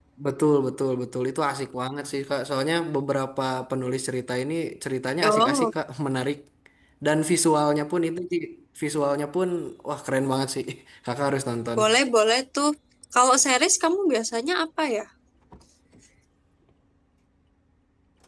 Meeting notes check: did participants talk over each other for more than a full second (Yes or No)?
No